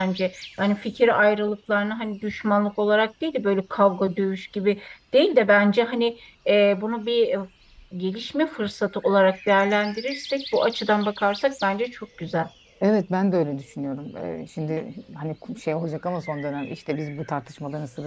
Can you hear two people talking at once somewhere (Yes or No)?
No